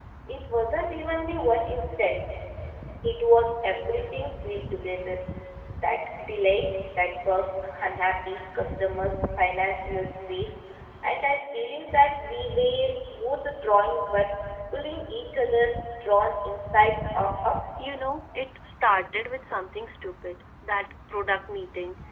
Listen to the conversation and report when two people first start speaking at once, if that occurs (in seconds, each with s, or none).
none